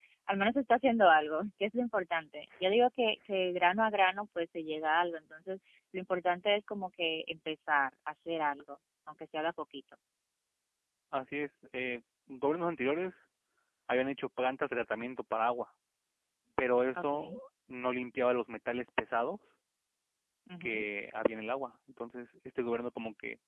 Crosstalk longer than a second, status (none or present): none